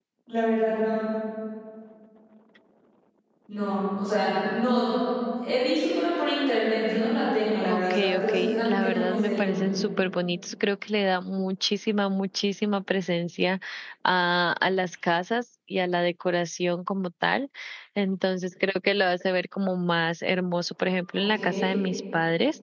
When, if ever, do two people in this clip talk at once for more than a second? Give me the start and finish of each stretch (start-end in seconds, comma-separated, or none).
7.7-9.7